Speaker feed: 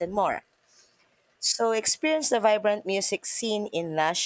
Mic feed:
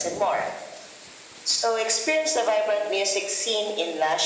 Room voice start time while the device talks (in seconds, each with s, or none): none